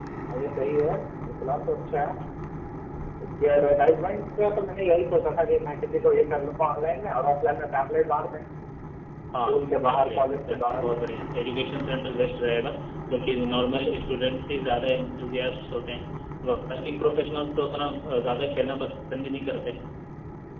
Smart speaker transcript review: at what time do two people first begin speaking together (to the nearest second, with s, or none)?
9 s